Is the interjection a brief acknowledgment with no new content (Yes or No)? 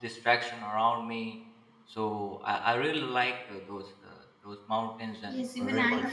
No